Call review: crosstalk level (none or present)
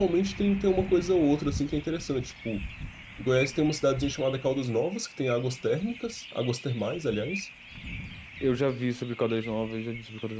none